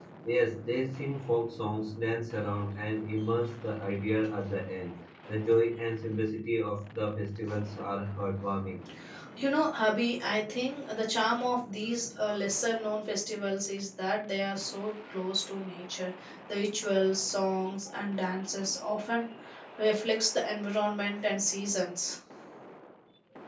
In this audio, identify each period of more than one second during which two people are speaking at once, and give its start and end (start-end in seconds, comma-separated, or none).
none